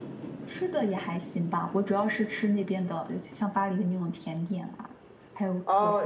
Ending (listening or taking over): taking over